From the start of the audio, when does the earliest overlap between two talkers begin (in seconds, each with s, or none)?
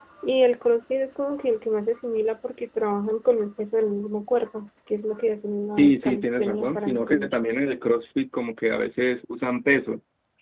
5.8 s